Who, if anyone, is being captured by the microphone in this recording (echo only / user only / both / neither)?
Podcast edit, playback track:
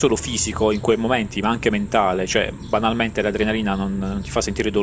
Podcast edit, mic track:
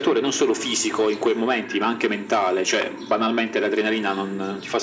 echo only